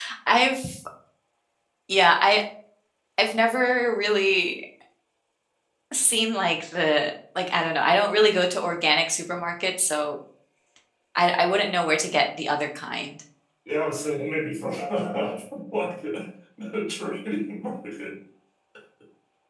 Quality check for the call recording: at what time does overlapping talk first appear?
none

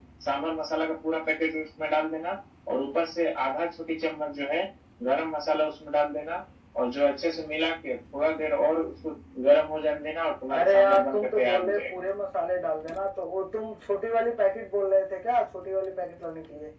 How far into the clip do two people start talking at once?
10.5 s

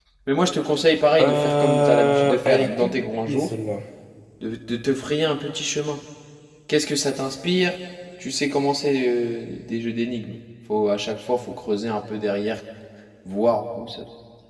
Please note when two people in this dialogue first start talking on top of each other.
1.2 s

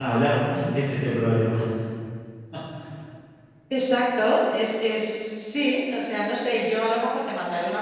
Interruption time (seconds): none

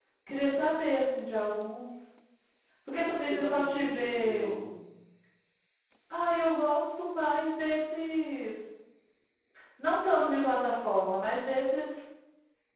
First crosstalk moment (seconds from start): 3.2 s

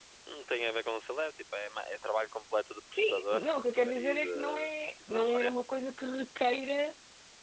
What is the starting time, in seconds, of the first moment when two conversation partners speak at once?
3.0 s

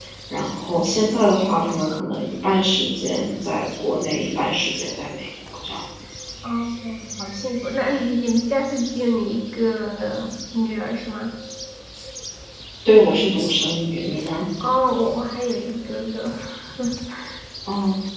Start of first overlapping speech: none

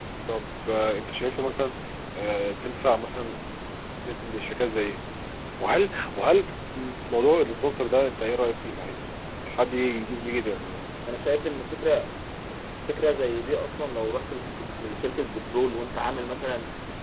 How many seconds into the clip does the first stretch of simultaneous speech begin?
none

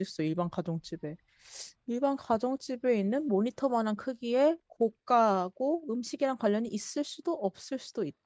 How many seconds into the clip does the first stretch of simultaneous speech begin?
none

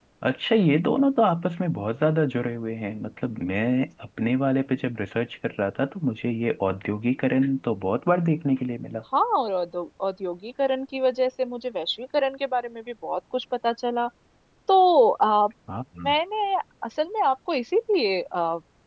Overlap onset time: none

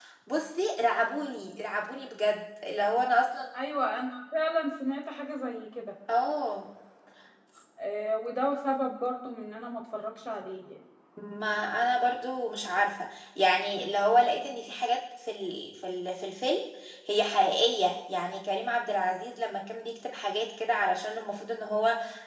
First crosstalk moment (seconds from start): none

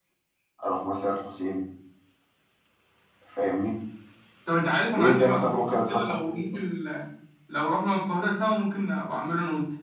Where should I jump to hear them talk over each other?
5.0 s

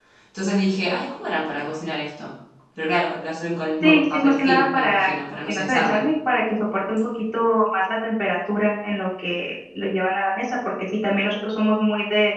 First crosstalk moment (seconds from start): 3.8 s

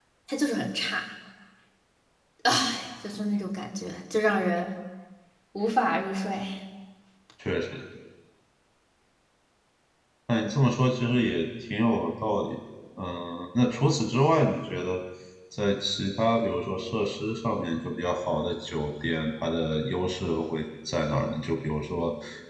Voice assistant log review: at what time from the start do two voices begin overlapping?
none

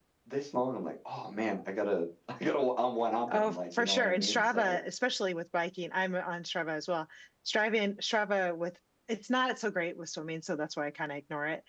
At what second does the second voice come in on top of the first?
3.3 s

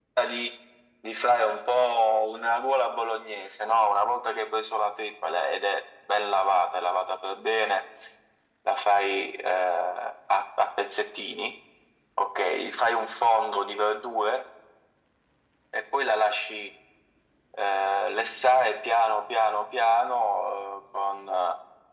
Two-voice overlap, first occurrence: none

